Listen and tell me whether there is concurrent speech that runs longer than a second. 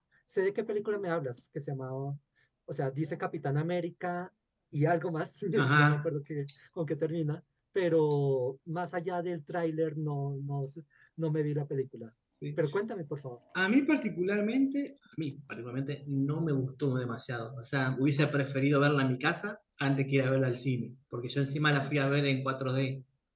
No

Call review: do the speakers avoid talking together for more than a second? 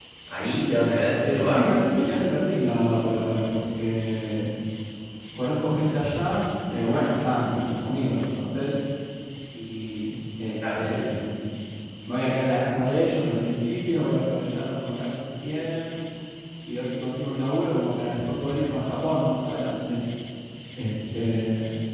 Yes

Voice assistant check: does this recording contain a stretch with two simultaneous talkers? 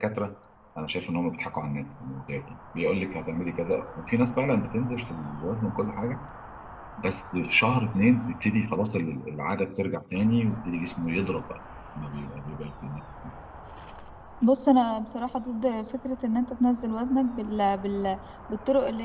No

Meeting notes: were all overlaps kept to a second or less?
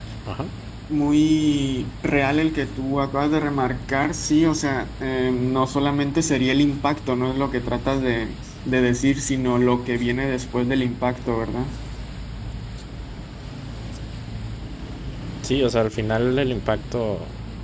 Yes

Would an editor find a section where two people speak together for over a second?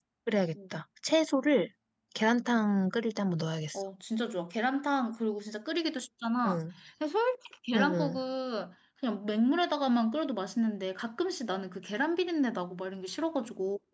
No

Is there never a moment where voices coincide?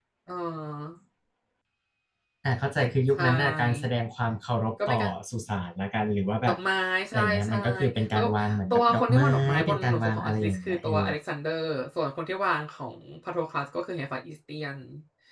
No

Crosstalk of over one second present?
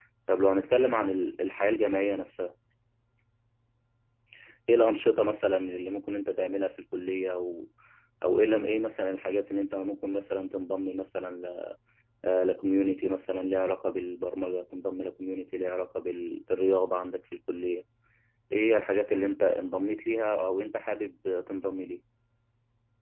No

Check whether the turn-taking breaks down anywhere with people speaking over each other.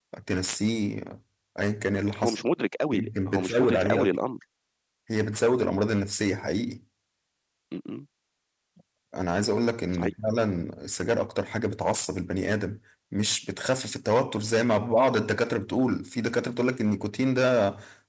Yes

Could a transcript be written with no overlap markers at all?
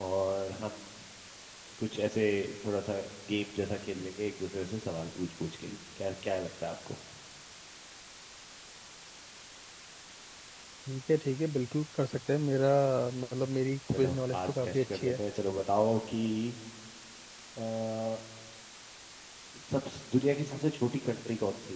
No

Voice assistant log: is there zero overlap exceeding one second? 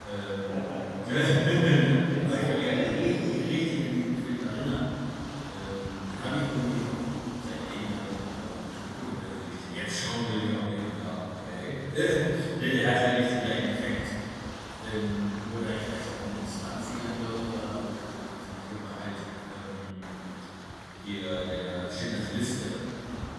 No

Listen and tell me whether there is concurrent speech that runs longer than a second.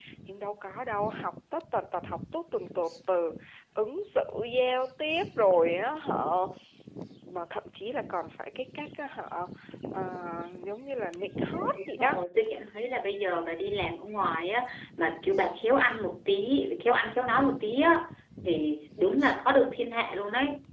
No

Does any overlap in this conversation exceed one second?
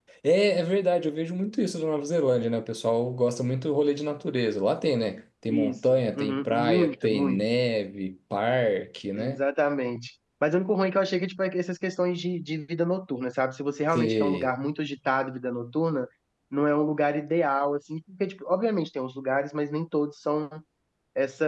Yes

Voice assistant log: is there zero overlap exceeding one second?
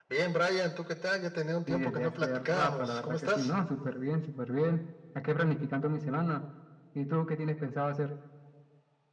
No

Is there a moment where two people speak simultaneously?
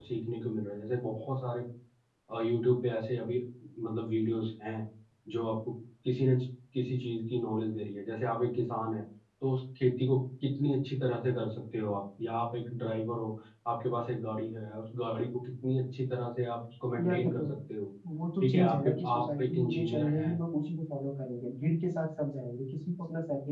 Yes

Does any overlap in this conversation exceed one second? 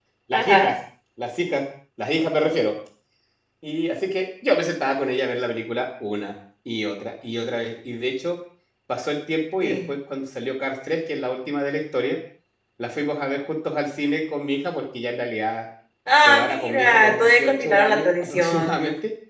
Yes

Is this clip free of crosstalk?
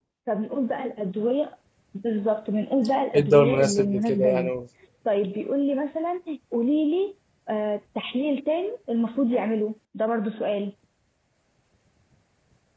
No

